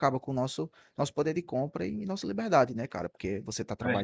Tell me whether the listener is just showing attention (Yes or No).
Yes